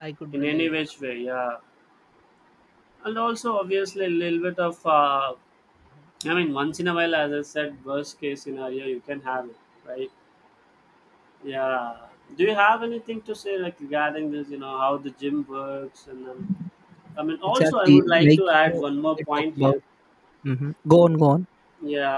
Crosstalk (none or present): present